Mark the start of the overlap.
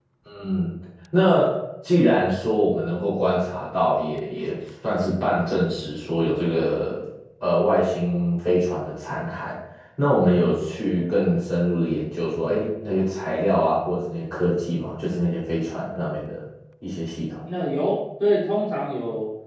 none

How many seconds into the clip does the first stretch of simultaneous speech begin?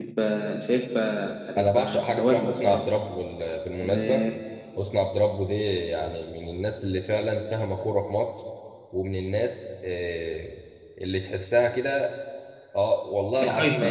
1.6 s

